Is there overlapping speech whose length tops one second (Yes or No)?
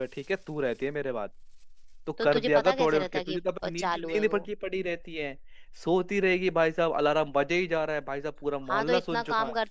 Yes